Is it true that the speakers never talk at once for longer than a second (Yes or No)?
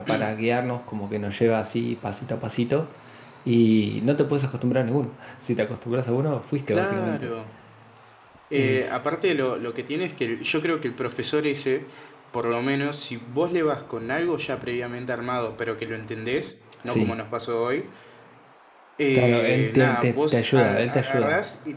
No